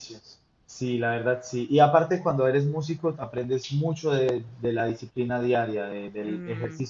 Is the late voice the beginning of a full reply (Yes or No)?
No